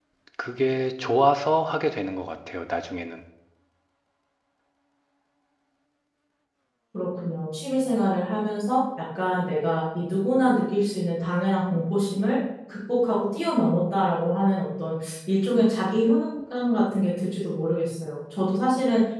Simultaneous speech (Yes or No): No